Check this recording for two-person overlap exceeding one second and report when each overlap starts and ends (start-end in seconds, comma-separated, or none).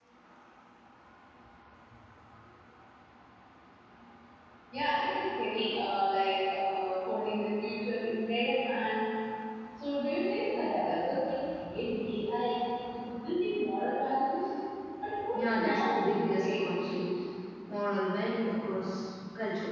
15.3-17.0